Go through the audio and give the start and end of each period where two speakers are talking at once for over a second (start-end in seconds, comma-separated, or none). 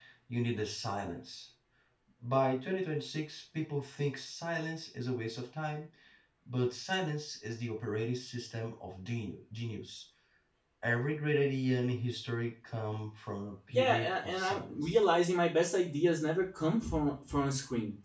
13.7-15.0